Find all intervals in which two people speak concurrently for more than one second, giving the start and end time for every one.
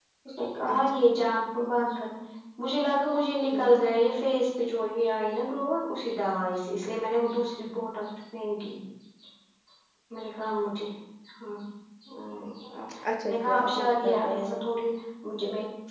13.3-14.5

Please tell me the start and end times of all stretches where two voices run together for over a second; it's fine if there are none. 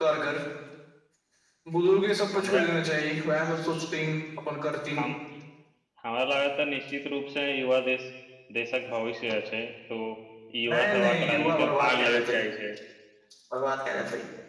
10.7-12.4

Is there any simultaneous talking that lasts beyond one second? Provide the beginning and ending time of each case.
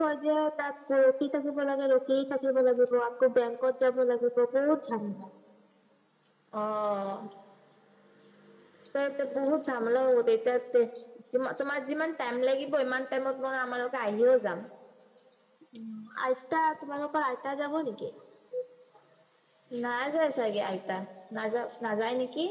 none

